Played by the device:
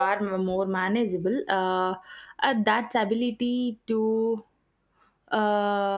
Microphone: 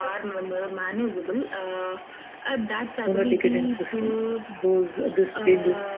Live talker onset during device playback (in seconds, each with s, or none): 3.1 s